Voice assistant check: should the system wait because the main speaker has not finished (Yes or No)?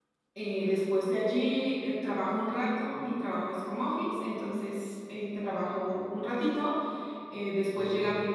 Yes